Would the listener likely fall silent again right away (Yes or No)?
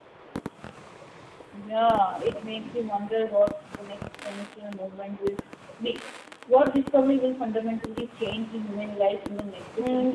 No